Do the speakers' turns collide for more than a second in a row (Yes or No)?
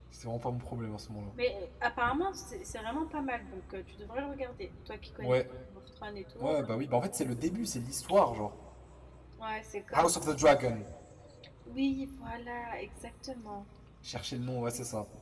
No